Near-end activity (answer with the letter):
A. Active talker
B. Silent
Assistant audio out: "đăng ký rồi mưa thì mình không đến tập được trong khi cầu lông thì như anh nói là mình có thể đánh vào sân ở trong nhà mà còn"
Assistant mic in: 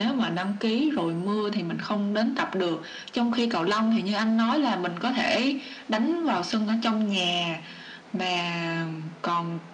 B